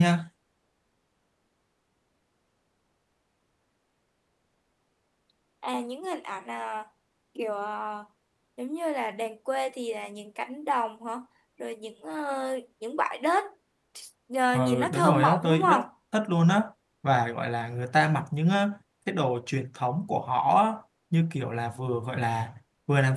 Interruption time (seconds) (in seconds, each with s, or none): 14.5 s